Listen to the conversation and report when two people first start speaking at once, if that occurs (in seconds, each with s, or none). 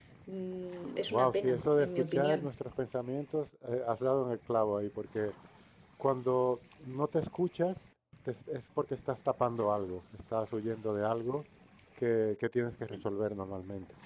1.1 s